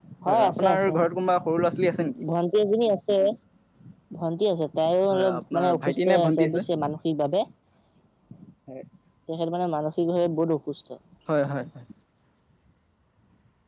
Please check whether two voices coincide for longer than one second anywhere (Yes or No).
Yes